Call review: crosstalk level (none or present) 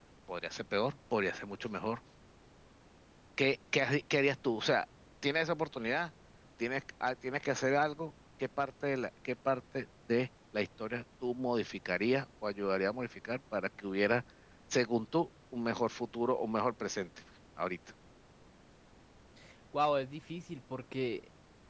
none